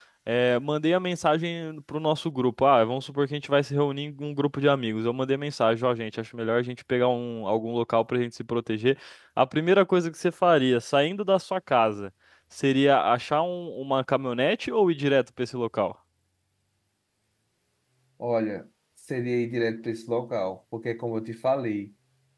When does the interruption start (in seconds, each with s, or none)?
none